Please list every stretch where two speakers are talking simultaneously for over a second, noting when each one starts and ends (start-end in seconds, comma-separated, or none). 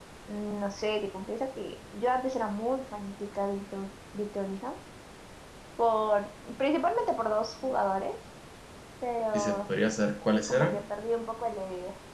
none